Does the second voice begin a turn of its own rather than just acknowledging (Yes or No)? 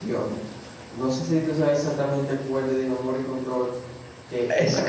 Yes